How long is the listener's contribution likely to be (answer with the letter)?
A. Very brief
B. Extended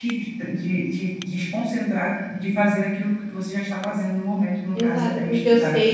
B